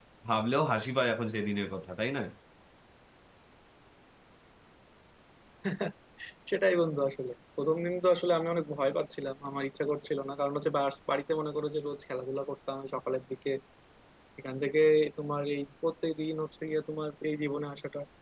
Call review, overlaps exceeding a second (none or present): none